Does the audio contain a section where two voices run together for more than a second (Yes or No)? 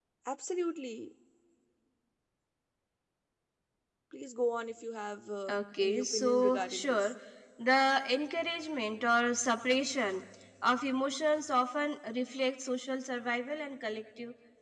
Yes